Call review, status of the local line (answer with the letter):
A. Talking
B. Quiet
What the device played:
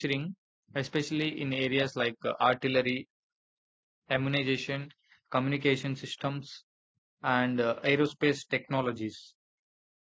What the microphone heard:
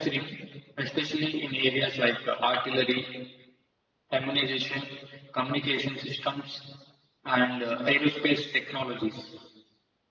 B